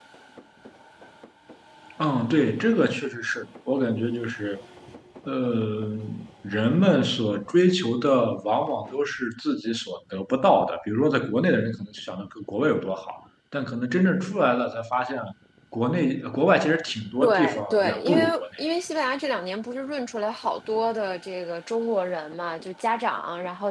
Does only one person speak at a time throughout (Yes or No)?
No